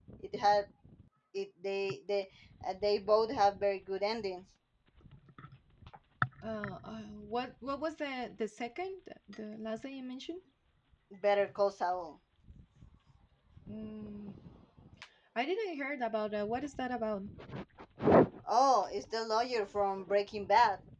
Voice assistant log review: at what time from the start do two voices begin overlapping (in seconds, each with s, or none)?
none